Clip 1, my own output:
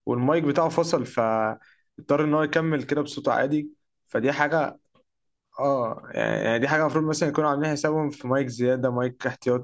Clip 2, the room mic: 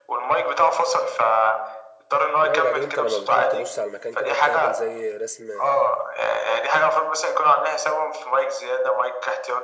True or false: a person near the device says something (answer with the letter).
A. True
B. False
A